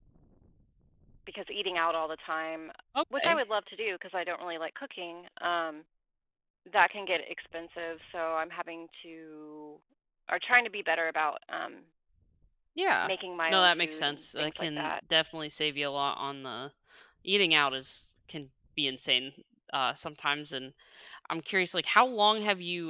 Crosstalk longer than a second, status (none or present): present